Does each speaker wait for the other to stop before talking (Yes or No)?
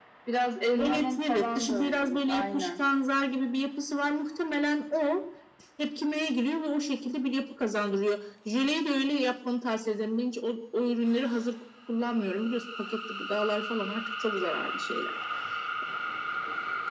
No